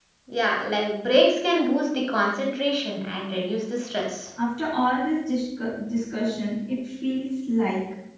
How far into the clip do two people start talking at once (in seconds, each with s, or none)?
none